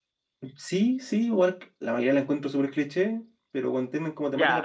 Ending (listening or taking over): taking over